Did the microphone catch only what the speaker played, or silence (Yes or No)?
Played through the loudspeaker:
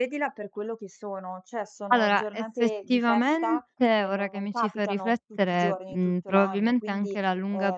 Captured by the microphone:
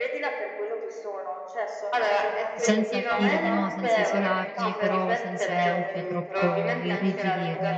No